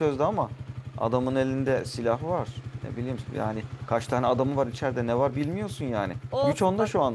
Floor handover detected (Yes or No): Yes